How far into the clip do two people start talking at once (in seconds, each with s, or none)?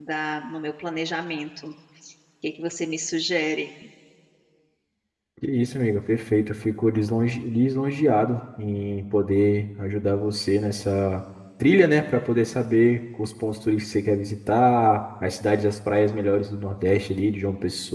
none